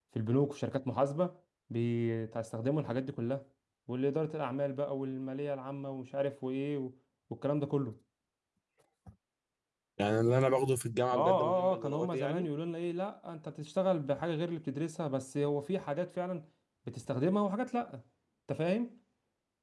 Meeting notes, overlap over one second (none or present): present